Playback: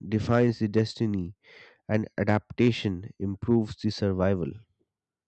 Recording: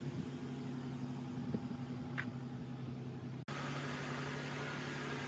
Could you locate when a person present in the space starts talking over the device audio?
none

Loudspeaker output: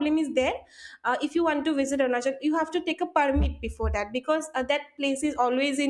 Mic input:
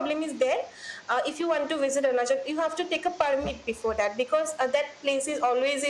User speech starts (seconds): none

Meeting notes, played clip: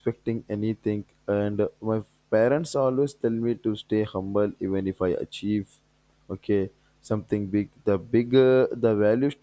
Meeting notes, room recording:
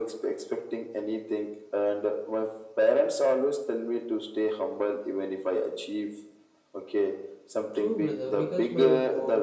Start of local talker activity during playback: 8 s

